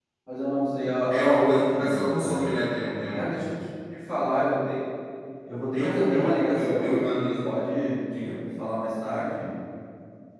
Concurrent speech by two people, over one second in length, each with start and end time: 1.1-2.5, 5.7-7.3

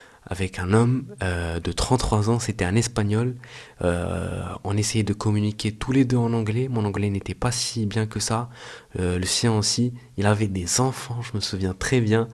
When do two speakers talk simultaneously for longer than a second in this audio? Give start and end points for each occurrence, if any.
none

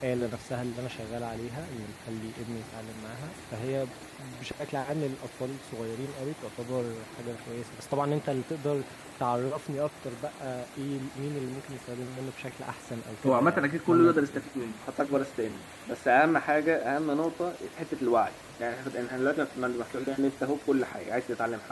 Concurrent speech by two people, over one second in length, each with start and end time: 13.2-14.5

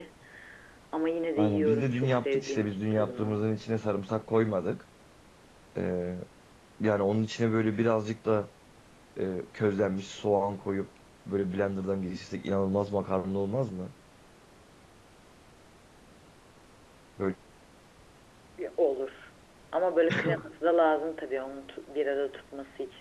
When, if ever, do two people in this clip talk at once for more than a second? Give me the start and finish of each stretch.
1.4-3.4

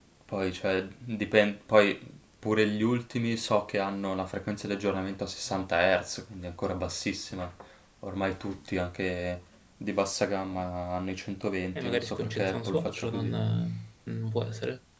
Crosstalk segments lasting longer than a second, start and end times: 11.8-13.3

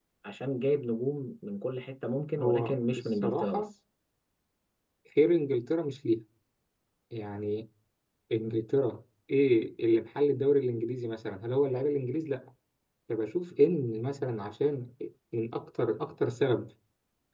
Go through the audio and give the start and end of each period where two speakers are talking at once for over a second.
2.4-3.6

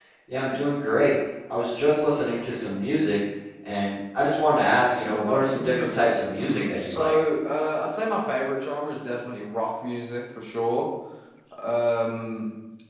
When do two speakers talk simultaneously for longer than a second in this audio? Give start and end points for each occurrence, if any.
5.0-7.1

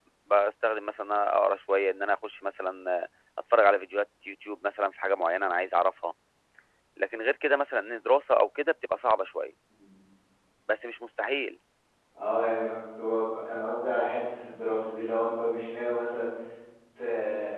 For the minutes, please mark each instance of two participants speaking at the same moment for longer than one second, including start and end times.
none

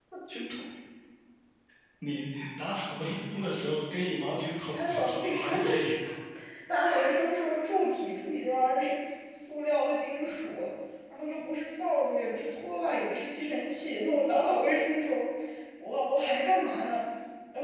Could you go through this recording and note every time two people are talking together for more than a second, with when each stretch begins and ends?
4.7-5.9

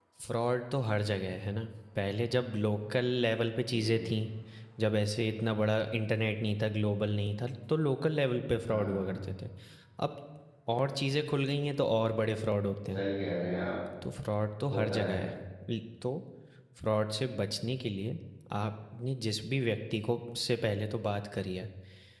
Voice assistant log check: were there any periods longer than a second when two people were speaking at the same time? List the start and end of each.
none

